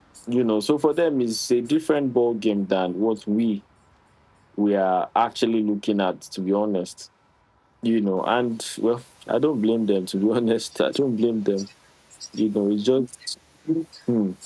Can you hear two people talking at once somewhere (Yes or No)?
No